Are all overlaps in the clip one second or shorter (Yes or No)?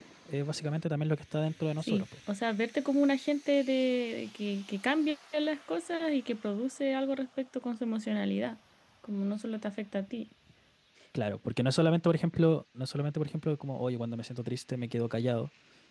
Yes